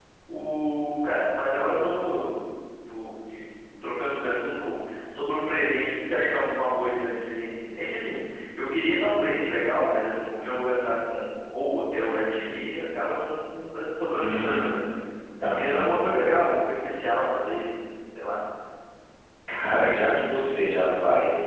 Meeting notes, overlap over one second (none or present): none